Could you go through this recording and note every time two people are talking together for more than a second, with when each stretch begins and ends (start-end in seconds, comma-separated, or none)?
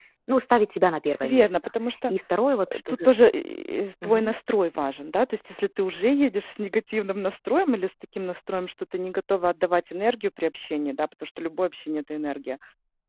none